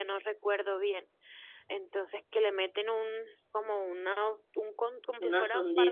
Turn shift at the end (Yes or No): No